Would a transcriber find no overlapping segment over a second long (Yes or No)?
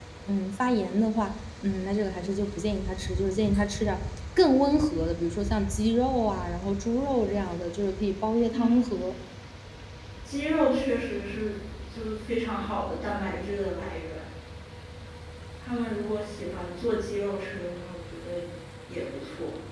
Yes